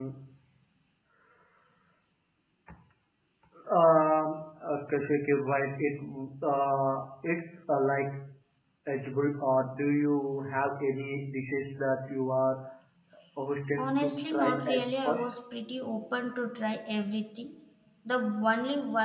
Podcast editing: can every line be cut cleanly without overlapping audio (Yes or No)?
No